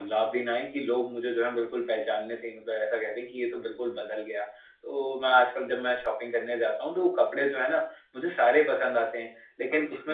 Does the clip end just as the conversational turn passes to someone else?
No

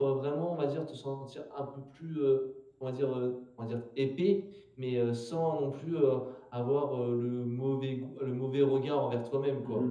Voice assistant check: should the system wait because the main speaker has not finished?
No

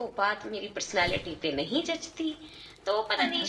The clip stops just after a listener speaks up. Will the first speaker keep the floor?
Yes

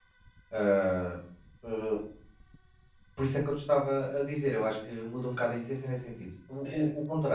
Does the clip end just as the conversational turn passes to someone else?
No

